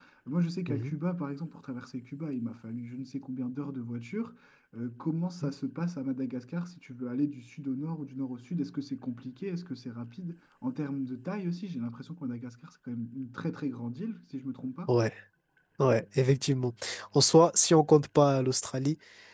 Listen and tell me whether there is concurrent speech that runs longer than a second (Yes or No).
No